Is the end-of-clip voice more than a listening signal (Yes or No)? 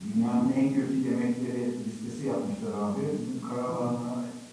No